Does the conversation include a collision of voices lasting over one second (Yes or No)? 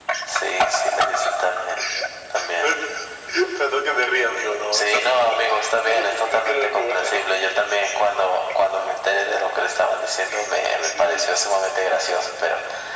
Yes